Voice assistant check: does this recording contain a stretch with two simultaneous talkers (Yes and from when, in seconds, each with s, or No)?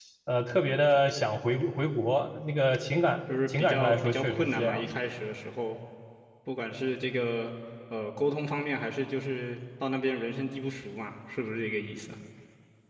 Yes, from 3.3 s